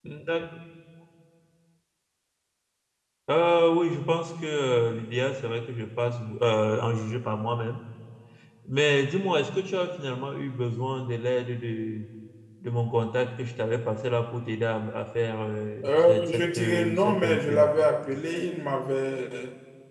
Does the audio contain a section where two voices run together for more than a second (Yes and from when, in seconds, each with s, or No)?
Yes, from 15.8 s